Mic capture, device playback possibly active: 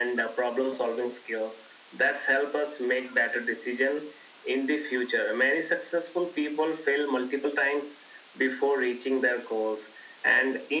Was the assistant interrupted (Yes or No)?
No